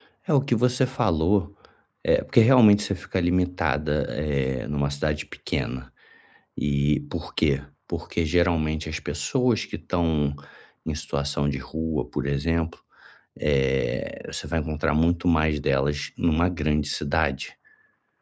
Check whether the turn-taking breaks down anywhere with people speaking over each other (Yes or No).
No